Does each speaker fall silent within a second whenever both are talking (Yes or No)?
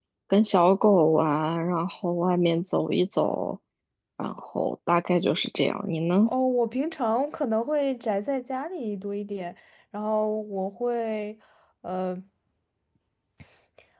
Yes